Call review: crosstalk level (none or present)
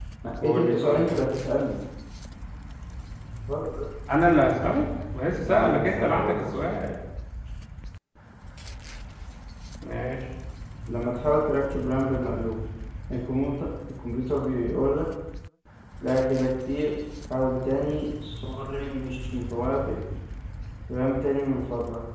present